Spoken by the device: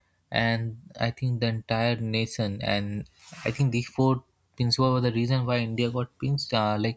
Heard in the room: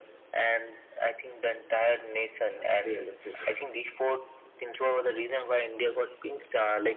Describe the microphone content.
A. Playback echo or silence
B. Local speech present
B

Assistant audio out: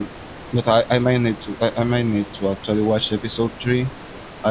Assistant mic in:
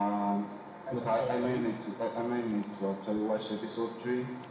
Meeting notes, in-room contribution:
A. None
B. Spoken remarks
B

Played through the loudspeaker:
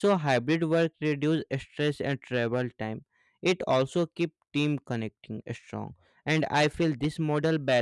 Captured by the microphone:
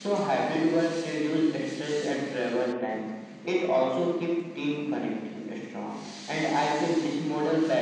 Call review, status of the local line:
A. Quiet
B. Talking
A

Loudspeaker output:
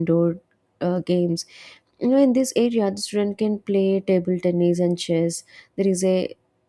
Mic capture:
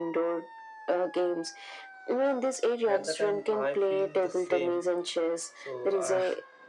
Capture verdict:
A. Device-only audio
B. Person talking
B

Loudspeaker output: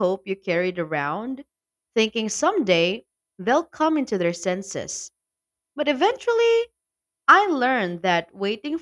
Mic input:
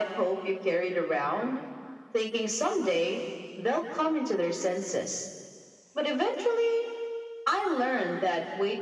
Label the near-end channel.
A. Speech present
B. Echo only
B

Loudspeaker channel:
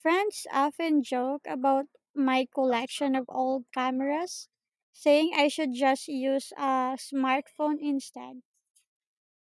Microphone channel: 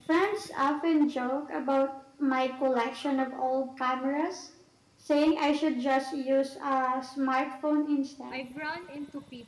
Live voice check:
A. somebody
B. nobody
A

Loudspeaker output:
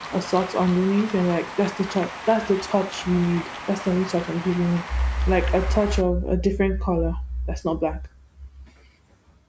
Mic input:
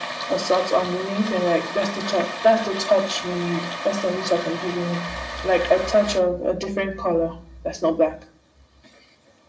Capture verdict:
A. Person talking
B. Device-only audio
B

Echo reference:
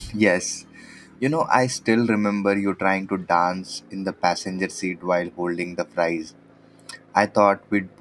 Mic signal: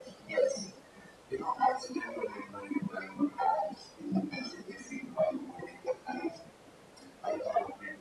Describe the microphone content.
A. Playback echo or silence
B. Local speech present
A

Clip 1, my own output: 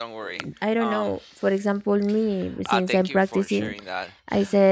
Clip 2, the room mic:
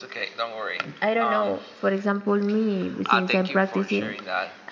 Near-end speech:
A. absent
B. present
A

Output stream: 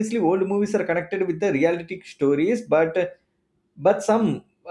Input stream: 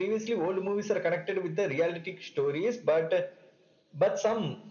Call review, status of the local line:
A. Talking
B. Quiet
B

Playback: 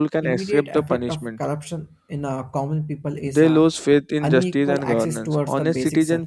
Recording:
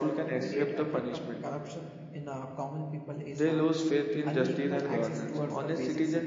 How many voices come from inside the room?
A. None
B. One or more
A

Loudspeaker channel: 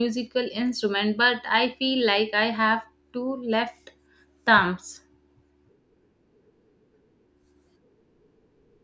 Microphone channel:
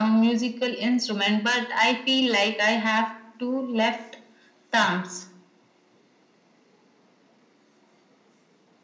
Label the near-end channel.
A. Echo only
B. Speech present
A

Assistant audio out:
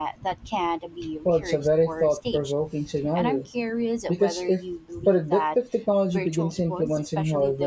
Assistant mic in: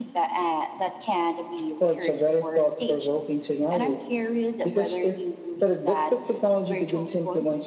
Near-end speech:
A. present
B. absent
B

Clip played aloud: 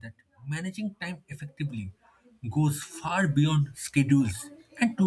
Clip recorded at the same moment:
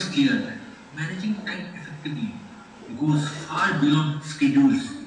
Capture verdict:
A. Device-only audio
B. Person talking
A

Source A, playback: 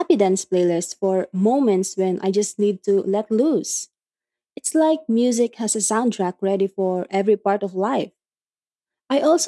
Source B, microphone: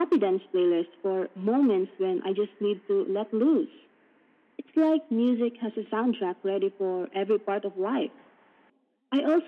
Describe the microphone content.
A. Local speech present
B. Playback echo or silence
B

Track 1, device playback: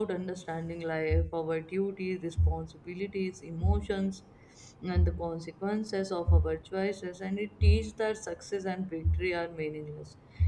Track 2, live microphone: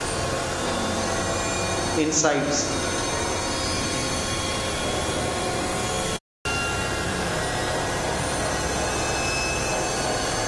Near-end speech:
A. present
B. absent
A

